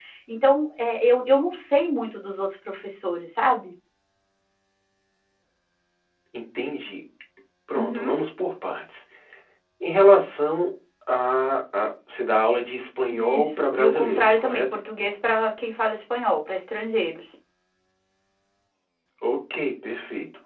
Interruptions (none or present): present